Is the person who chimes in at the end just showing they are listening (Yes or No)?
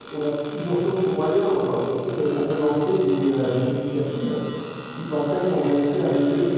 Yes